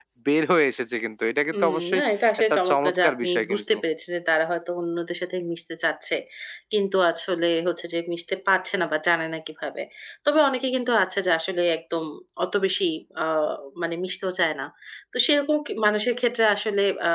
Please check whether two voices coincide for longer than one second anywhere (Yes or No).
Yes